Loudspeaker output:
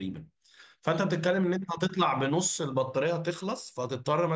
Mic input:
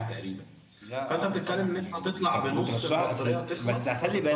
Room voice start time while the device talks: 1 s

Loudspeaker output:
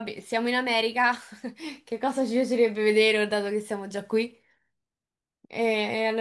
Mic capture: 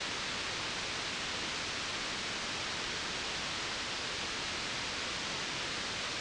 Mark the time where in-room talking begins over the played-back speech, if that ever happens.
none

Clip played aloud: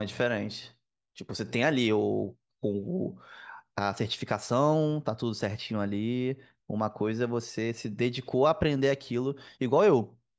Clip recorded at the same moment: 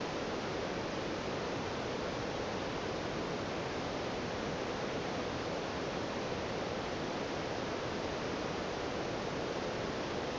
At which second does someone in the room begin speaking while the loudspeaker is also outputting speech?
none

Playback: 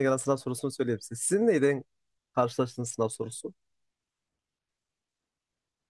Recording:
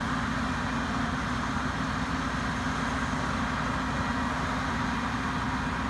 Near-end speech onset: none

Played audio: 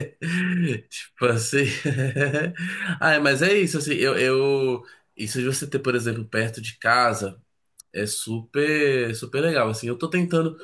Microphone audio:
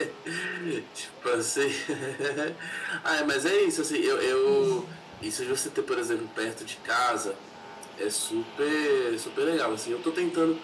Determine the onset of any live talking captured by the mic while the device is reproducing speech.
4 s

